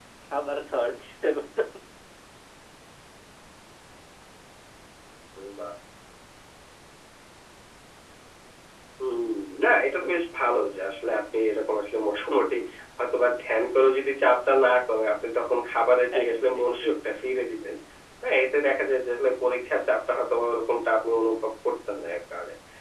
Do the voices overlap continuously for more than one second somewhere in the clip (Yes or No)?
No